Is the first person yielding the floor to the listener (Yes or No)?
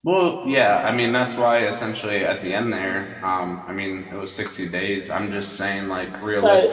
Yes